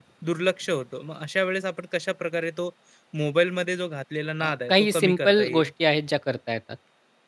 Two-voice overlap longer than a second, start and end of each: 4.4-5.7

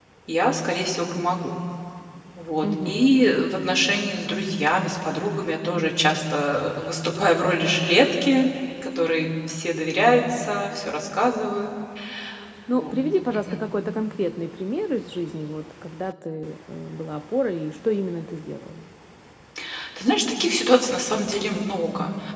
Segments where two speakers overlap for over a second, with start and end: none

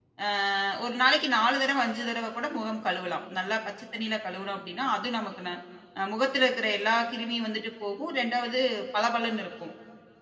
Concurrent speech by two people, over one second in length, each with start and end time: none

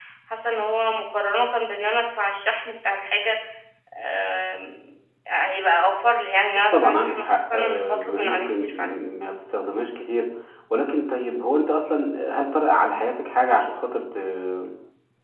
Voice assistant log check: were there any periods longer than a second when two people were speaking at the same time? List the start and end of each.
6.7-8.9

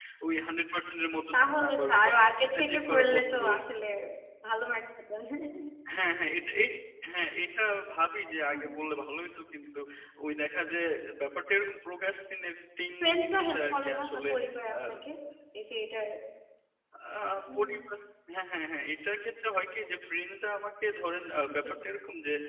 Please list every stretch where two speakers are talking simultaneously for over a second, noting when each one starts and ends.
1.3-3.6, 13.0-14.3

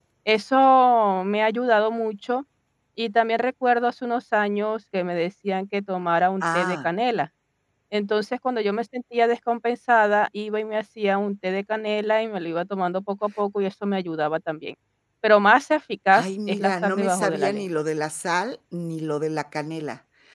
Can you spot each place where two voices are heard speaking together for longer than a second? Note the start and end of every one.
16.1-17.6

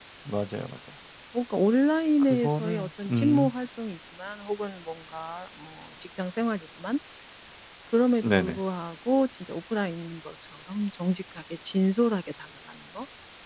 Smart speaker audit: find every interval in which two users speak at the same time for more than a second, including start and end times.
2.3-3.5

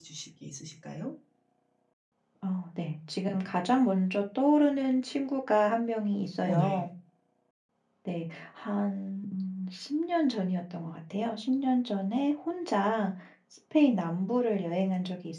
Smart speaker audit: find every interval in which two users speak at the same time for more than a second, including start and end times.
none

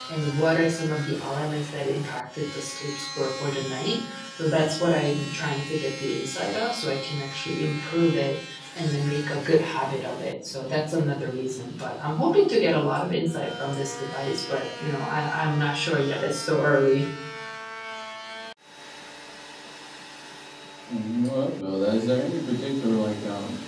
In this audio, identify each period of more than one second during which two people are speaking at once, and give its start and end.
none

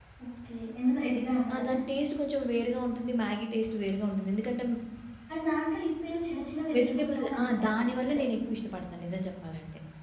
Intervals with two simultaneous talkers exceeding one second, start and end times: 6.8-8.2

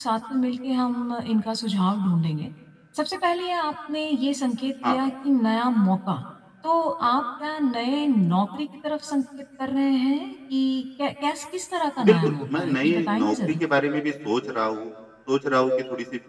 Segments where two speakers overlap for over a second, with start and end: 12.1-13.6

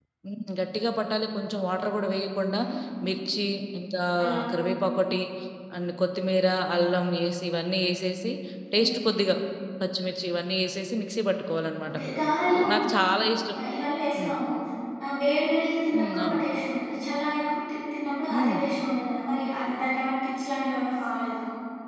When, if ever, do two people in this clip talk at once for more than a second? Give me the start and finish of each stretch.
none

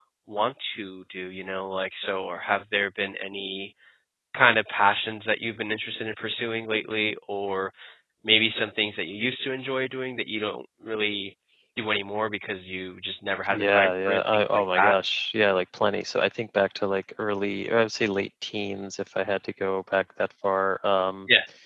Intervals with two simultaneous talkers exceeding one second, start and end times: 13.5-15.0

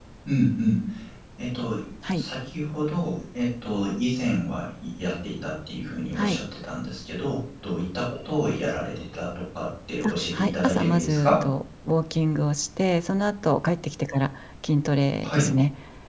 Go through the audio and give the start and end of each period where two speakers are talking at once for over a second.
10.1-11.3

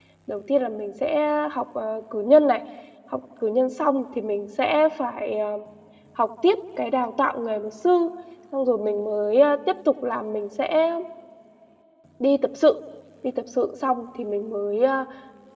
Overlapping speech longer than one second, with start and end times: none

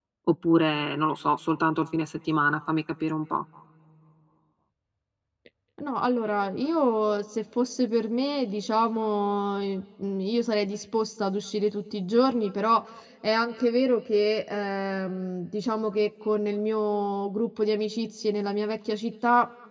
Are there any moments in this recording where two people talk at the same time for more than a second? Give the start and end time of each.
none

